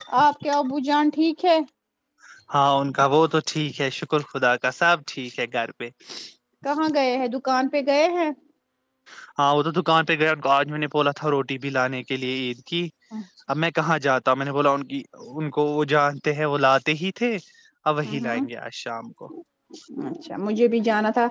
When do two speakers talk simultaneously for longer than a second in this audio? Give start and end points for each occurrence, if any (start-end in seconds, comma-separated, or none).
none